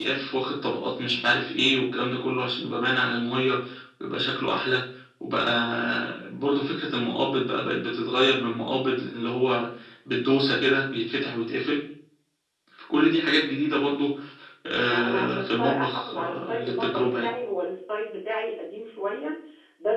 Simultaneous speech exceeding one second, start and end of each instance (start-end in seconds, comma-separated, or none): 14.8-17.3